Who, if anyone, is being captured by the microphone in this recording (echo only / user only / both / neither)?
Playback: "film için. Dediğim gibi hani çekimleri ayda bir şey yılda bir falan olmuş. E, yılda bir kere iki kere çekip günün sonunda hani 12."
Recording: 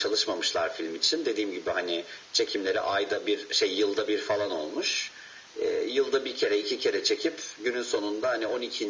echo only